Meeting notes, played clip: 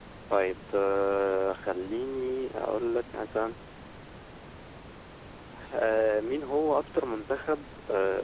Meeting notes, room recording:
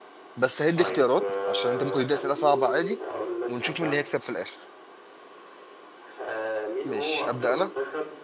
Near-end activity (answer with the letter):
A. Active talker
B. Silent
A